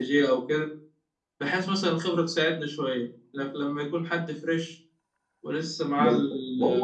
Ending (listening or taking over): taking over